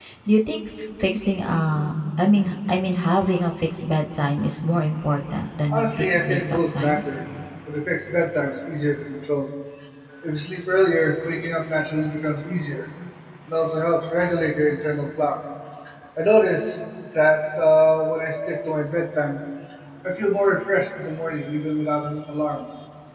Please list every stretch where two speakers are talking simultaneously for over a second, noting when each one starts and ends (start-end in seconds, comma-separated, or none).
5.7-7.0